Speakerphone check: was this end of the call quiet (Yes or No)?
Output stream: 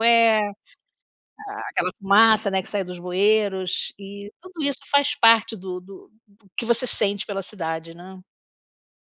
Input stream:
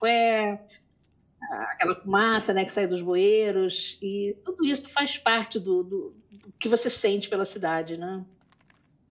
Yes